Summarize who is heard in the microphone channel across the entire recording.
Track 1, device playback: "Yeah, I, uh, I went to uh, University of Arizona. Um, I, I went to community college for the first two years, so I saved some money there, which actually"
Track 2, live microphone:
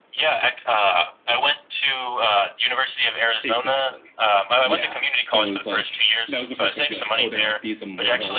both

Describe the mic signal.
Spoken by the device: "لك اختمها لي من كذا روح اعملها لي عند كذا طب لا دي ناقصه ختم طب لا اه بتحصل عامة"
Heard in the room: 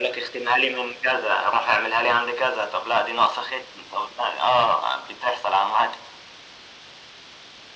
echo only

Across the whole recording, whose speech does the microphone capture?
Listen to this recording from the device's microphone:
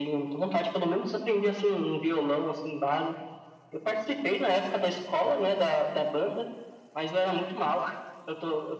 echo only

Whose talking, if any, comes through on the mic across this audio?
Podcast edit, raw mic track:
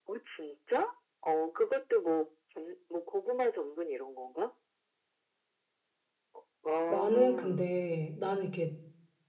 both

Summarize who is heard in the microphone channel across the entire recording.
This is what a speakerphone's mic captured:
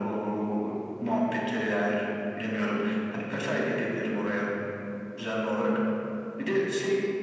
echo only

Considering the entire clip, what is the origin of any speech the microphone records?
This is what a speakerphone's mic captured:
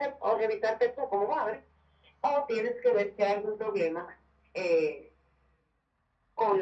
echo only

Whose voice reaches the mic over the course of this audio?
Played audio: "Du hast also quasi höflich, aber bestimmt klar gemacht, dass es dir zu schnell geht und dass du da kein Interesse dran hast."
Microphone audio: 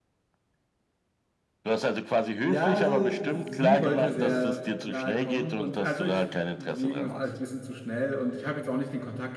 both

